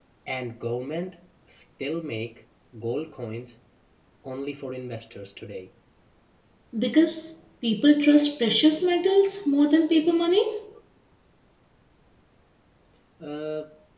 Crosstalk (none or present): none